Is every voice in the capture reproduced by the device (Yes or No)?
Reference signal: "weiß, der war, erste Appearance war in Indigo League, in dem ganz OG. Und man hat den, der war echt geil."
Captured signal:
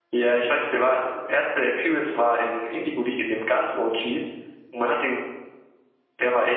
Yes